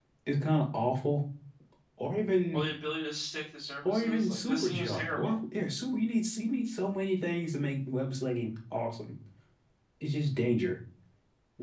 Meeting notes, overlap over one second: present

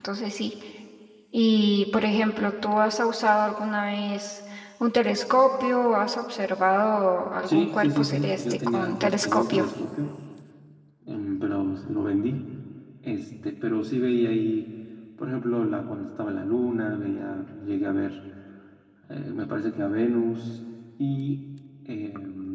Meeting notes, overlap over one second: present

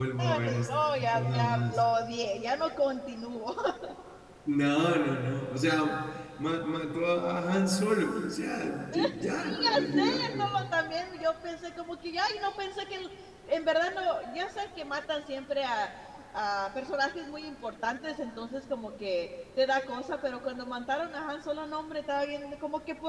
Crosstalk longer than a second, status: present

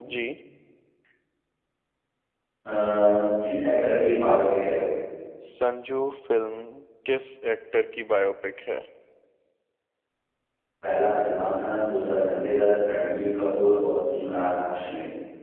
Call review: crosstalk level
none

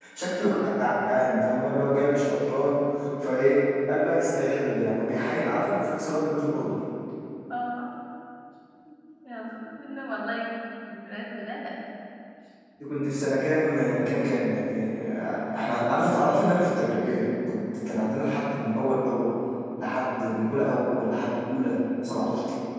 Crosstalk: none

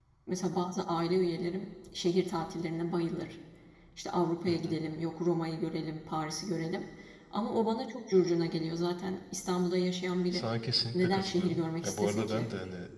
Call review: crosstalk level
present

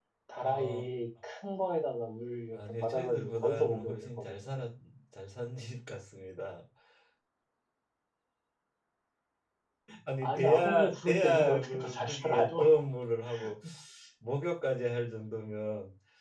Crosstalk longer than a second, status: present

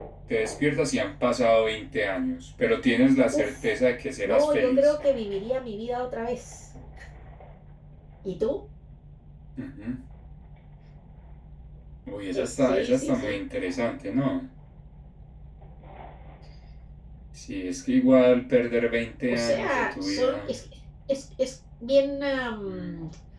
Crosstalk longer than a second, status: present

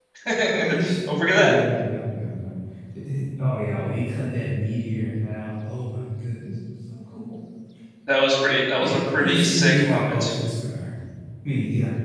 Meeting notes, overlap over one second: present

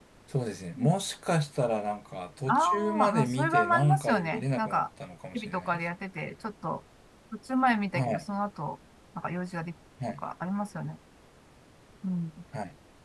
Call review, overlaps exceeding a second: present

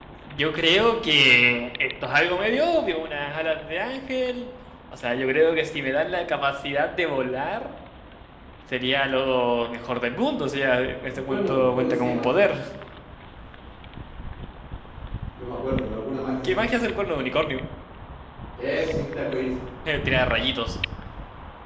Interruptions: present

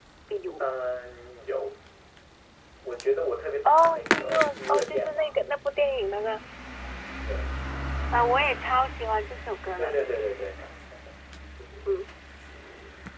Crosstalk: present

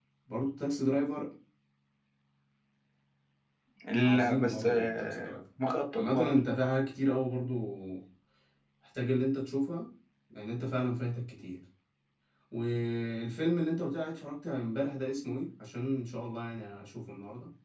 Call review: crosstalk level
present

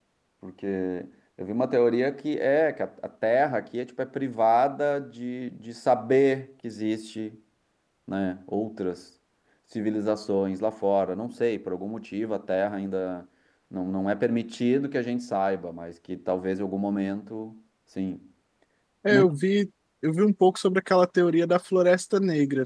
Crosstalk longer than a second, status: none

